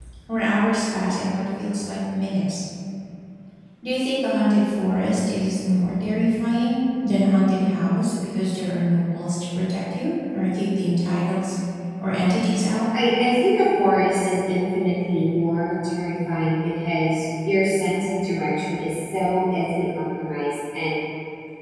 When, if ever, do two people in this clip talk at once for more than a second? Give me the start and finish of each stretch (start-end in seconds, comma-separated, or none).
none